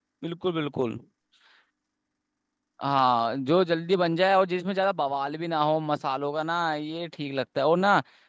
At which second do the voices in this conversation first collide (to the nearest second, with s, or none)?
none